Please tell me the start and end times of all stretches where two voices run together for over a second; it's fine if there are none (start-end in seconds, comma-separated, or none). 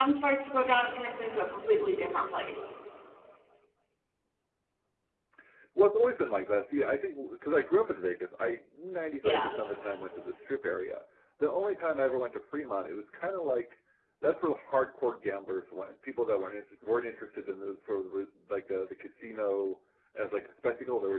none